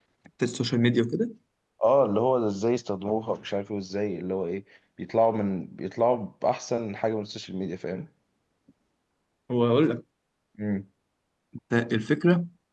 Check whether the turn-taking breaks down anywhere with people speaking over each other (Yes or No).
No